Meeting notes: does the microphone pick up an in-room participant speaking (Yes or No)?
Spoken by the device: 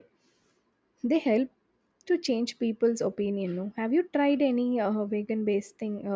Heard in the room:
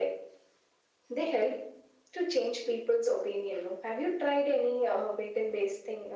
No